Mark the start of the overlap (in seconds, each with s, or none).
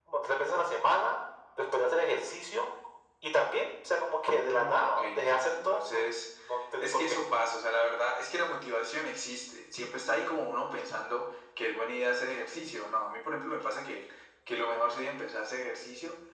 4.4 s